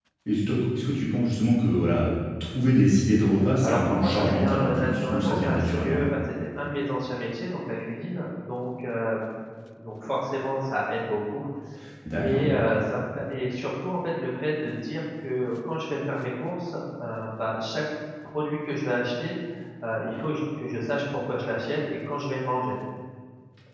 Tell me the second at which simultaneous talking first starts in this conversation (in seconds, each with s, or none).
3.6 s